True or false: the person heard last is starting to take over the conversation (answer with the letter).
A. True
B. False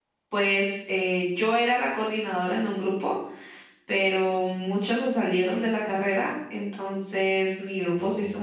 B